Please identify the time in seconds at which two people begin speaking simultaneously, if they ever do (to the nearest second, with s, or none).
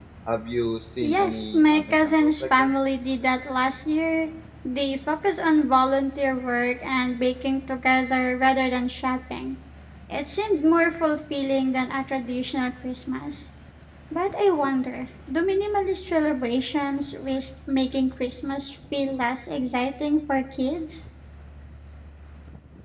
1 s